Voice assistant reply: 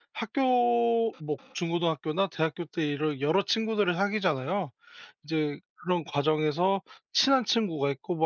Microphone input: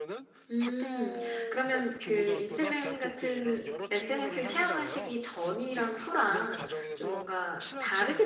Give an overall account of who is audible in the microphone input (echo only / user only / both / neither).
both